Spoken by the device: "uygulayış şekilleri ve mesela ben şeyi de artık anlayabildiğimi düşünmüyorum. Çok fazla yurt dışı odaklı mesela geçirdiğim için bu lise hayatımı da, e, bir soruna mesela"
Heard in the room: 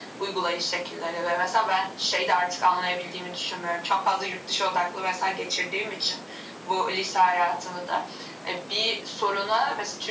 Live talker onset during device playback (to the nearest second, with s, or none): none